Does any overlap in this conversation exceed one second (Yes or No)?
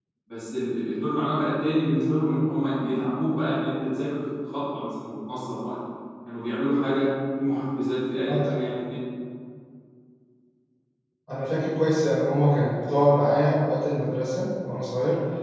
No